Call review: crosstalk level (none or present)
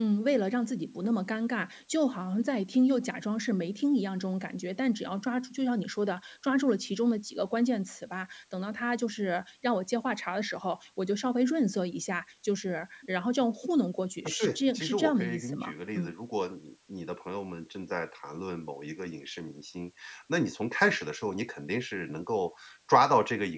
present